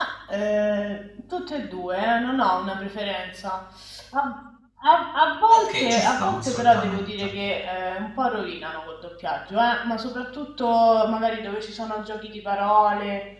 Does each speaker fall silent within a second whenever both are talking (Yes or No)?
No